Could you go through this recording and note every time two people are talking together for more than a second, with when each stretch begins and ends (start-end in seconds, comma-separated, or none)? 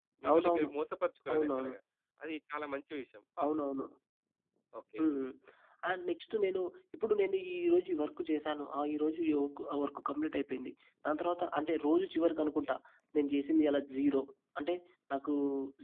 none